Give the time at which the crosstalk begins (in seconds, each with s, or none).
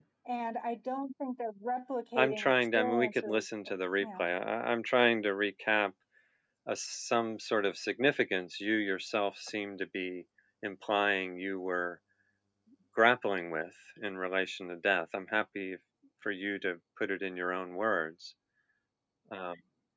2.2 s